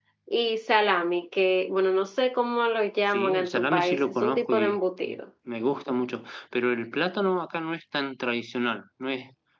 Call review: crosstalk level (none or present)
present